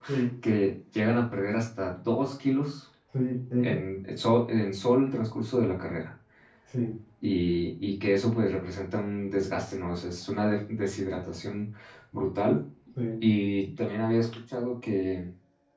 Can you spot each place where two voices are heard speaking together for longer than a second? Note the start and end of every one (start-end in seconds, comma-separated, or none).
none